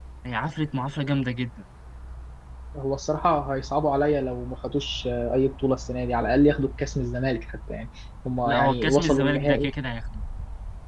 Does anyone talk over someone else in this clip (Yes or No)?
Yes